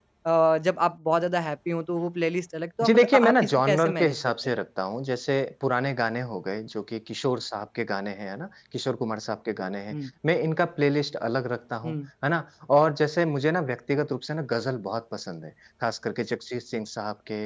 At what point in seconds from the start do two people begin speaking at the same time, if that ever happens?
2.8 s

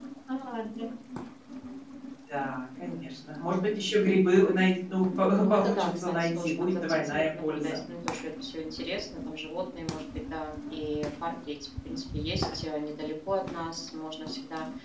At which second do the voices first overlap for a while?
5.4 s

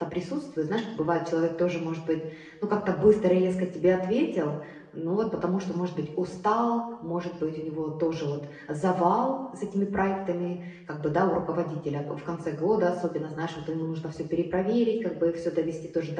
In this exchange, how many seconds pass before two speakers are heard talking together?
none

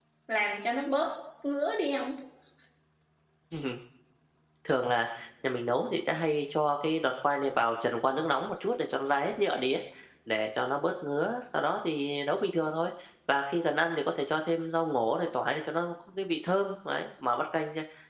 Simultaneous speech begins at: none

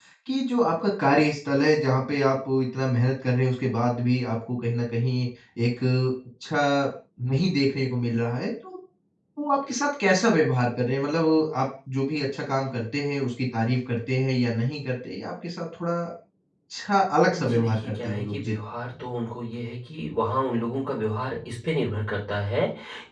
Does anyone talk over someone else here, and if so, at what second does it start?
17.3 s

